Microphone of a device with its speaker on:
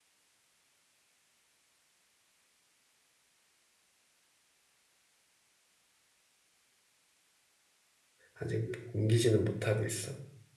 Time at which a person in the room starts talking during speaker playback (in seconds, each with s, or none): 8.3 s